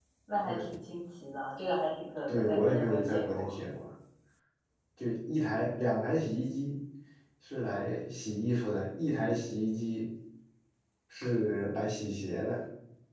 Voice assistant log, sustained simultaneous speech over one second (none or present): present